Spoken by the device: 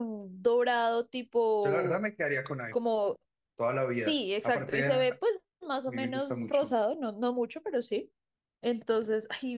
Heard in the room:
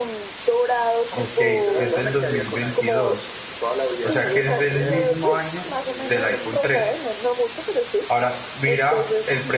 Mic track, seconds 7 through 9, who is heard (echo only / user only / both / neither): both